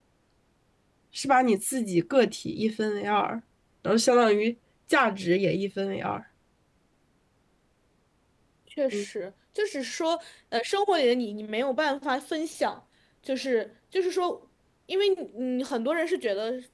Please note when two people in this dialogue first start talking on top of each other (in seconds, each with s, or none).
none